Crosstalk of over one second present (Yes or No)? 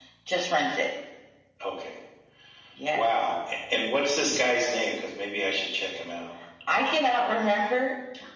No